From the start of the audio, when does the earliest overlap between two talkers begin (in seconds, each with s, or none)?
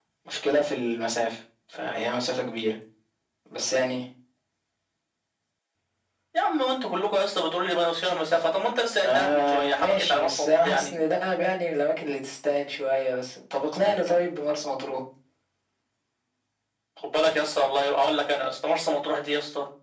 9.0 s